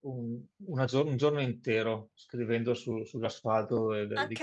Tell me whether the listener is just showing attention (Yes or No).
No